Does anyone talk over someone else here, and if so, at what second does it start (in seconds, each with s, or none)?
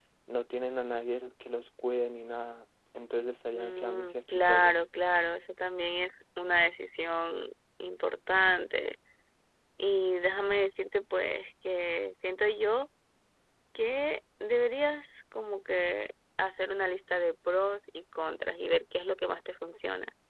3.6 s